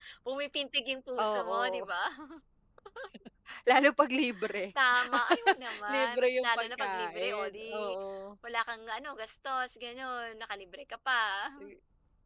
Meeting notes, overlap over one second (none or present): present